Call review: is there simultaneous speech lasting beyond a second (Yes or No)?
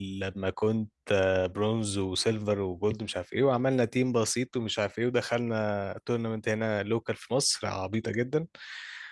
No